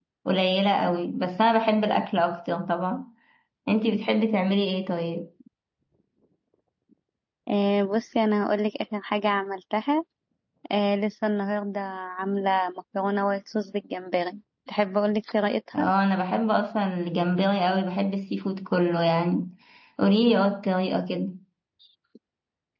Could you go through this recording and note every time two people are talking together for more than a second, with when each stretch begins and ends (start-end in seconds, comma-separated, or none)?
none